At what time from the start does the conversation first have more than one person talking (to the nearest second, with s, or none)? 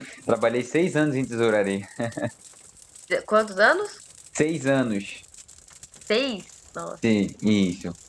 none